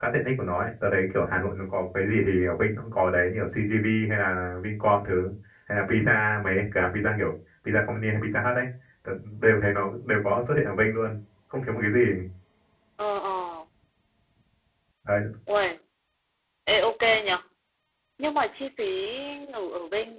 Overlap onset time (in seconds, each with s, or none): none